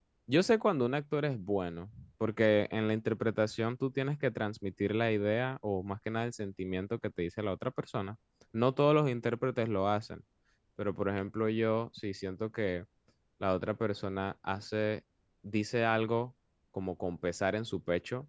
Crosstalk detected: No

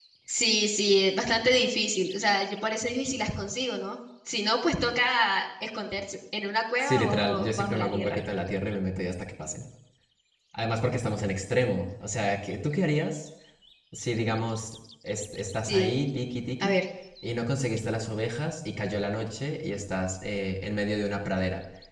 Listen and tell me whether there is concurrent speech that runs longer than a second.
Yes, from 6.8 s

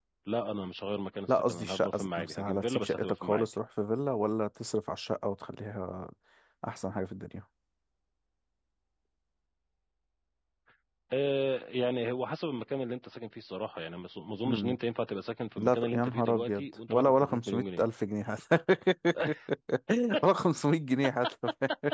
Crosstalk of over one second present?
Yes, from 1.3 s

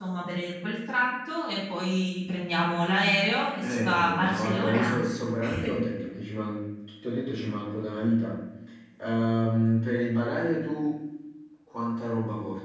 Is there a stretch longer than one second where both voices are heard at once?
Yes, from 3.6 s

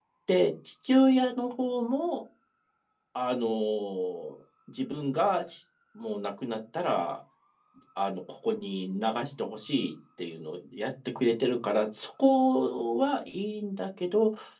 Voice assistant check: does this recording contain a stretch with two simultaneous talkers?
No

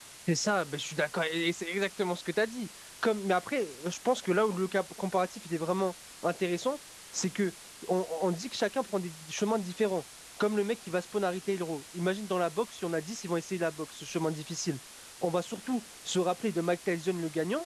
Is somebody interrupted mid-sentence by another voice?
No

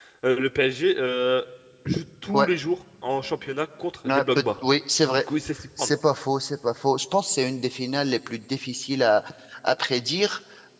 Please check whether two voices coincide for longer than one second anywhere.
No

